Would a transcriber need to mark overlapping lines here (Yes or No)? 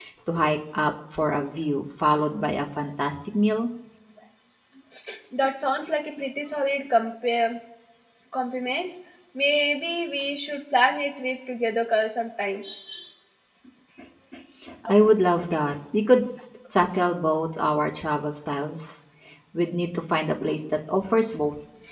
No